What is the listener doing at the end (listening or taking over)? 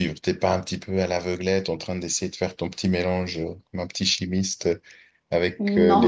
listening